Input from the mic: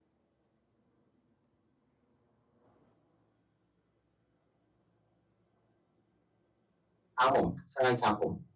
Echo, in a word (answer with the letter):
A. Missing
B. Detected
A